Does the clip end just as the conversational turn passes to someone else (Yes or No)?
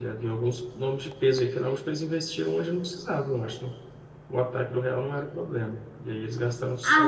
Yes